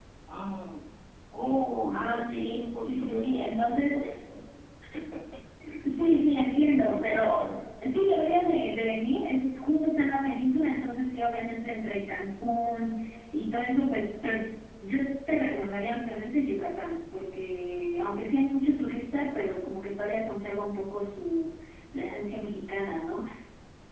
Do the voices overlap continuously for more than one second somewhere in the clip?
Yes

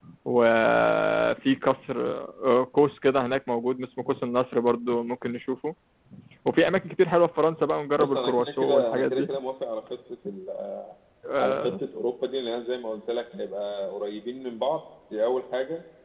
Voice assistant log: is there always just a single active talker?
No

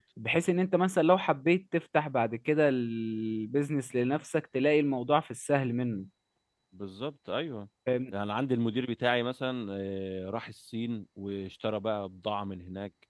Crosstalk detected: No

